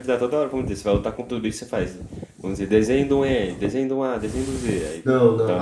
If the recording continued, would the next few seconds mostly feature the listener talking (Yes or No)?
Yes